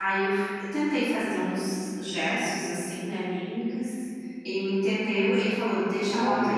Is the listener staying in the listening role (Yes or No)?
Yes